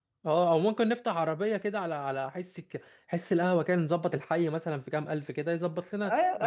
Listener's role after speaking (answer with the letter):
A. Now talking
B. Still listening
A